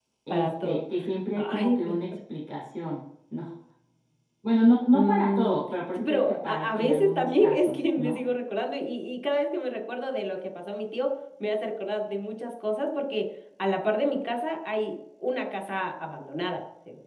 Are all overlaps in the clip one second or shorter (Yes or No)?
No